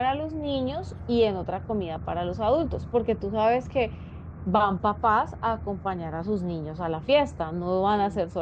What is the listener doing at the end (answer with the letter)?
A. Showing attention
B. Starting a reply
A